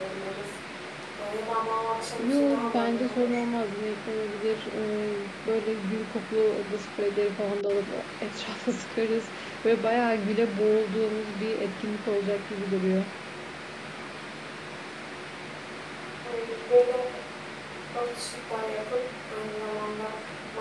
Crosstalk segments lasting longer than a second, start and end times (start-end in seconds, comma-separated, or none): 2.2-3.4